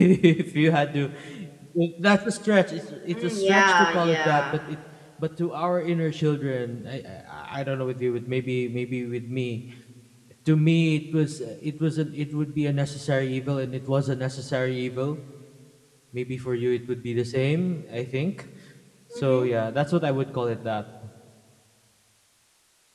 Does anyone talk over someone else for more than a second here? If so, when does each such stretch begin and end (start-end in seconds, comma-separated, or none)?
3.1-4.4